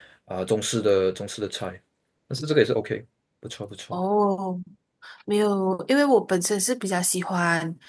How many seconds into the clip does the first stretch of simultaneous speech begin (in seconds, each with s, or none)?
none